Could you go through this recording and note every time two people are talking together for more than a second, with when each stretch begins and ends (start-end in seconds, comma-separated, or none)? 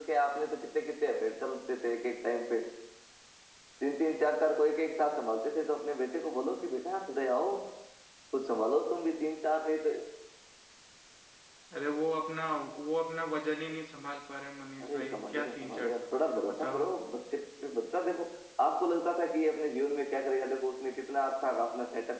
14.8-16.9